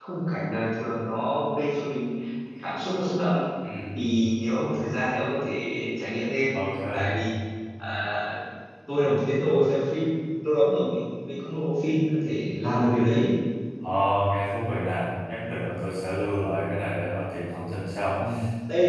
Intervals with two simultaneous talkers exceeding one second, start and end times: none

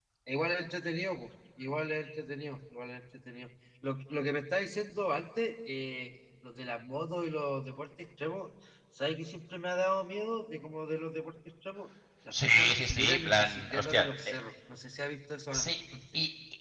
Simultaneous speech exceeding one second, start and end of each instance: 12.3-14.3

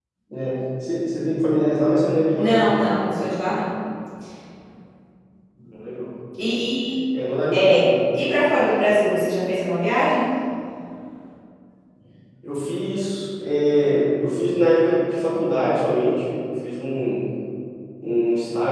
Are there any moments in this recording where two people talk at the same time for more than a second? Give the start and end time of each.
none

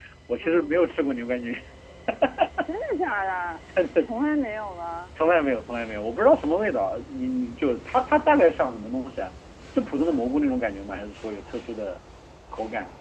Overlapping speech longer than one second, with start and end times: none

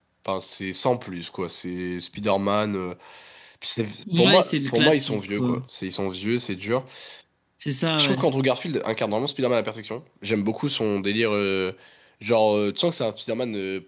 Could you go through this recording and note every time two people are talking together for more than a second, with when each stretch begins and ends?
4.2-5.6

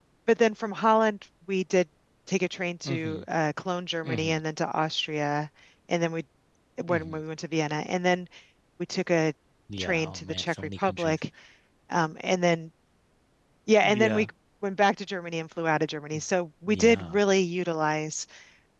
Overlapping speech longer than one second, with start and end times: 9.8-11.2

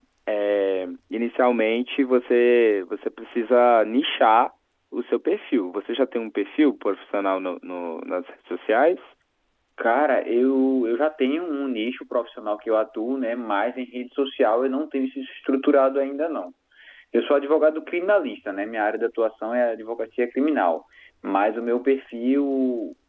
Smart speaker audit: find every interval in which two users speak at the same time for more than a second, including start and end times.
none

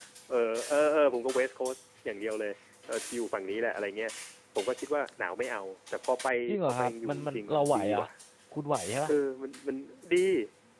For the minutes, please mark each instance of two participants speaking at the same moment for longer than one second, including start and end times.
6.6-8.0

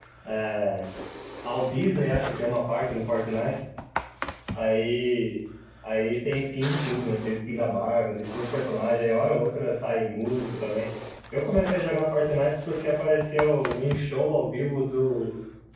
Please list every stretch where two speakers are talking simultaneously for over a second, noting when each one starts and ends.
none

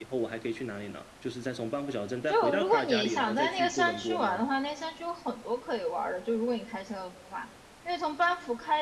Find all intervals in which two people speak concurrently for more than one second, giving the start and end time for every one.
2.3-4.4

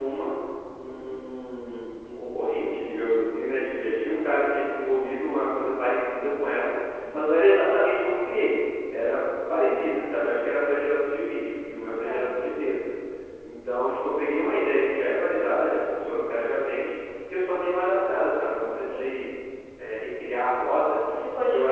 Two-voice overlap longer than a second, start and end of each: none

